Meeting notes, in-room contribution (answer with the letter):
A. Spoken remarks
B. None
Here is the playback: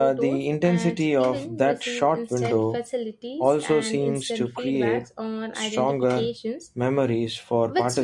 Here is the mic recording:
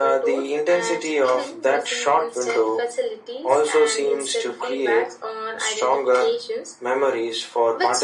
B